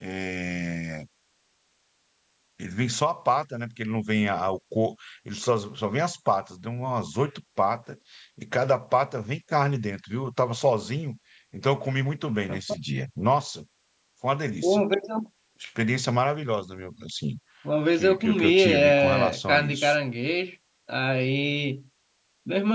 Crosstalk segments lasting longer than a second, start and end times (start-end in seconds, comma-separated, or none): 17.9-20.0